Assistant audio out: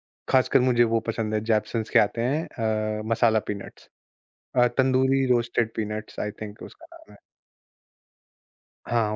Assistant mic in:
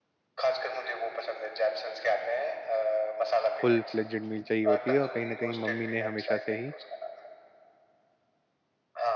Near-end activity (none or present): present